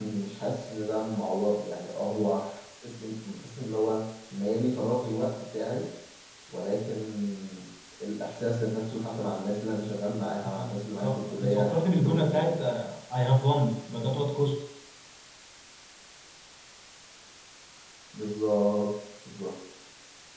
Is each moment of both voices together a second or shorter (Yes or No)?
No